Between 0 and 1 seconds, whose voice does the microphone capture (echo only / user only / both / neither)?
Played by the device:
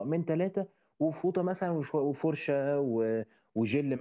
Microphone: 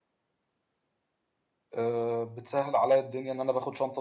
neither